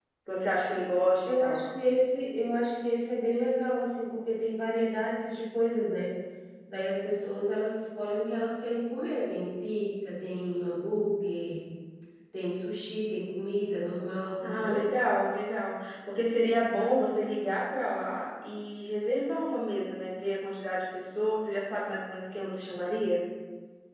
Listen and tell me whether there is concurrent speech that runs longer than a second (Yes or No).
No